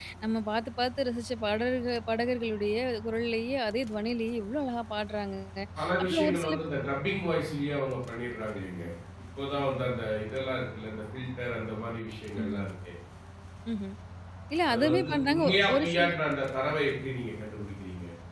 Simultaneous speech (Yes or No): Yes